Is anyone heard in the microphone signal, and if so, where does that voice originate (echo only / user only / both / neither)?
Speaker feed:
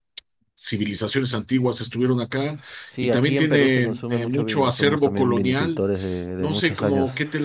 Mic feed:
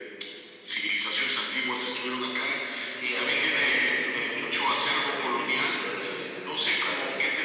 echo only